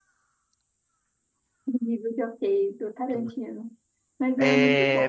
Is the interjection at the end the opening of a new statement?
Yes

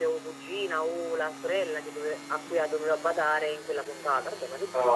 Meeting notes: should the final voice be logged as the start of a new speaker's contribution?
Yes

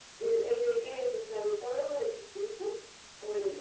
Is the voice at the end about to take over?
Yes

